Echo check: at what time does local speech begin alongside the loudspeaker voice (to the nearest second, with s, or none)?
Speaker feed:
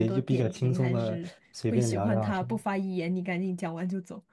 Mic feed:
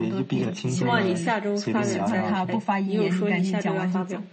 0 s